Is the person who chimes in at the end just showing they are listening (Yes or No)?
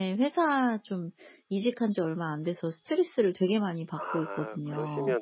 No